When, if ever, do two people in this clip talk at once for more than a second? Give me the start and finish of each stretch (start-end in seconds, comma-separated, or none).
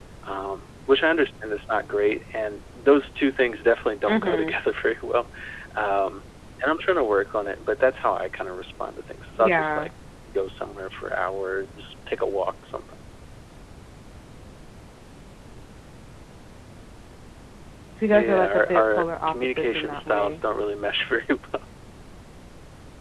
18.1-20.4